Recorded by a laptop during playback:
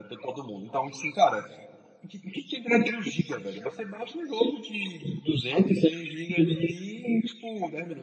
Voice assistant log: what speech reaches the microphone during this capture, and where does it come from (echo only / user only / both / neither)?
echo only